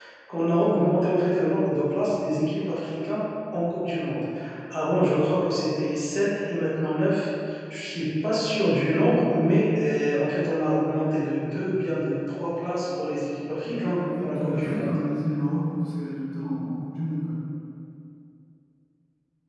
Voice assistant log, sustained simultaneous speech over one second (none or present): present